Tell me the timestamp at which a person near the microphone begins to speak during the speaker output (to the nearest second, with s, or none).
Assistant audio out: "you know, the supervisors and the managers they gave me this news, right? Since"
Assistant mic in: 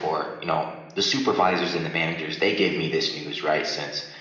none